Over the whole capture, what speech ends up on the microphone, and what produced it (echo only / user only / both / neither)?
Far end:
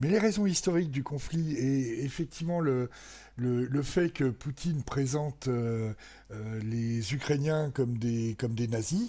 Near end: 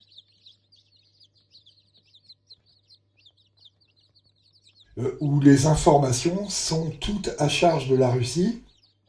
user only